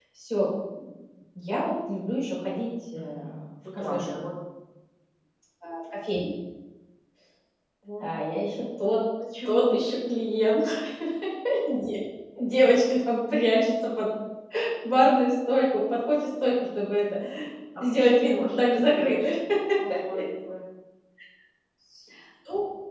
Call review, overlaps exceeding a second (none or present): present